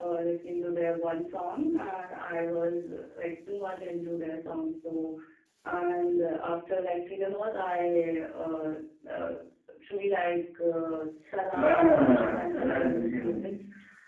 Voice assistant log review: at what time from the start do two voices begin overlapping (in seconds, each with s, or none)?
11.5 s